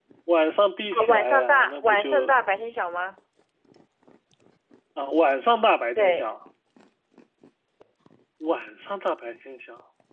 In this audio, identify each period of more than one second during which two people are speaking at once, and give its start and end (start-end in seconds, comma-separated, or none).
0.9-2.3